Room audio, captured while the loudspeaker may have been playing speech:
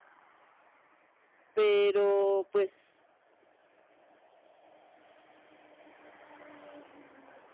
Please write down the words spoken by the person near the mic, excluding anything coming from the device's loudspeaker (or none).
Pero, pues,